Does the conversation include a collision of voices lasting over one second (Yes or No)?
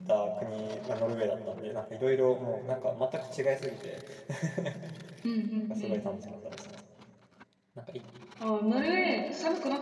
No